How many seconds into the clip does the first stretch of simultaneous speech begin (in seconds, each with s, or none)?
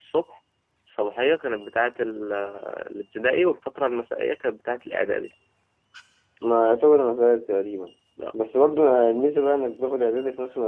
none